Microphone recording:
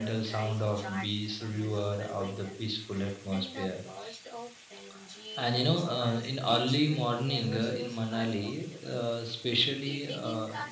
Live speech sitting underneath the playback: Yes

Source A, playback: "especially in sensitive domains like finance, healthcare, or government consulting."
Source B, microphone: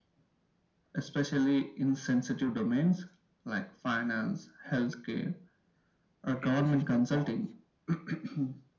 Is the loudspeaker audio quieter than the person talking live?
No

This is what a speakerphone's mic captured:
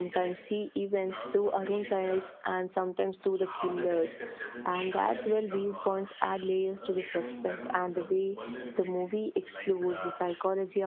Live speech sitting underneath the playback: No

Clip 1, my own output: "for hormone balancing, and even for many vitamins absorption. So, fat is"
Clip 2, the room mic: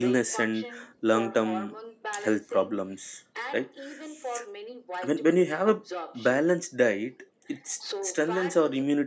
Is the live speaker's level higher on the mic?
Yes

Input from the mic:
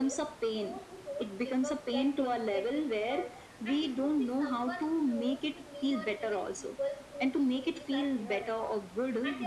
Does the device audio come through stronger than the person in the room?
Yes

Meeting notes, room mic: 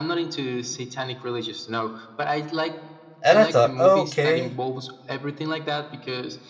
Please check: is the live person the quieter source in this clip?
No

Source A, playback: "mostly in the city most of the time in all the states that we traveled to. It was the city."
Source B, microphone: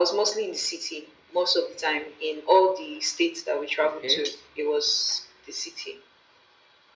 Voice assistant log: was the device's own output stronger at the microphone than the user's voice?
Yes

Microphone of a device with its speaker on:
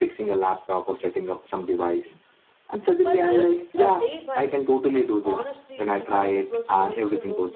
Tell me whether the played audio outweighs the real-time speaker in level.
Yes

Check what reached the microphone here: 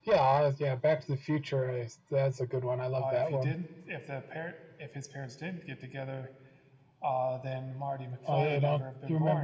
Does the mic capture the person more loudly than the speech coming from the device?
No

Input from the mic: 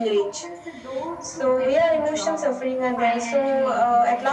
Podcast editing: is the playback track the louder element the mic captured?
Yes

